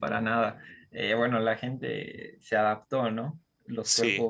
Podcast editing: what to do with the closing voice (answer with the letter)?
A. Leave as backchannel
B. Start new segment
A